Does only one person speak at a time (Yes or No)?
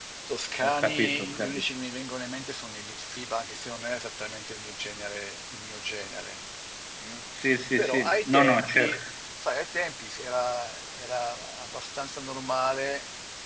No